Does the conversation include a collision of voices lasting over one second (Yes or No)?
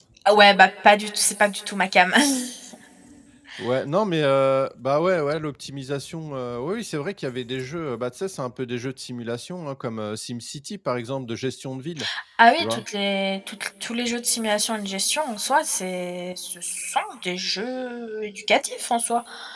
No